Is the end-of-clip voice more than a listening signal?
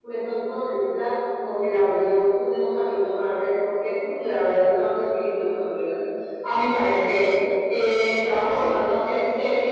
No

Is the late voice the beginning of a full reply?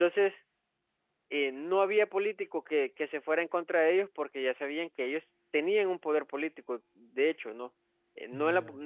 No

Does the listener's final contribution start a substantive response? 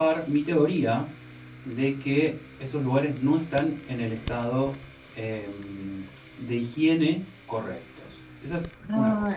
Yes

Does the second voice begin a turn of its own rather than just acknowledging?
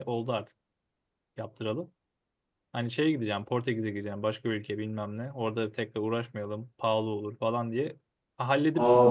Yes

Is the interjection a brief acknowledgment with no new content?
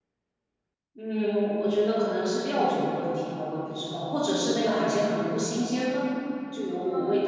No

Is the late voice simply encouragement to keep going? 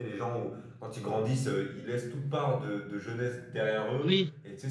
Yes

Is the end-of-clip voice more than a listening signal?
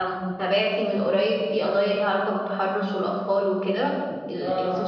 No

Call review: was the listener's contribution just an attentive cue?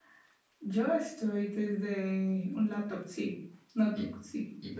No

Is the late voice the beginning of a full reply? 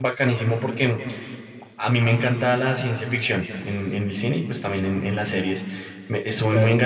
No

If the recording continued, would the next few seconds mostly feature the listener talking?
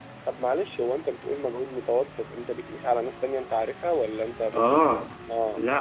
Yes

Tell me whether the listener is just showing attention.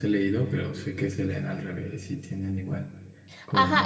No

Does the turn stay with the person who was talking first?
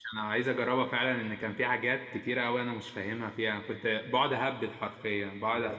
Yes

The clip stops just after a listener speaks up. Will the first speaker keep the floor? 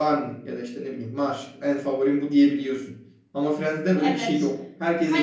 No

